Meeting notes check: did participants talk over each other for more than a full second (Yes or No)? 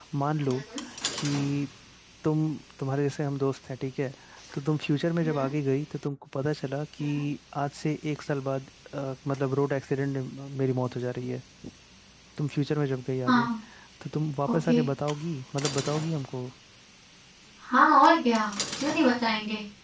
No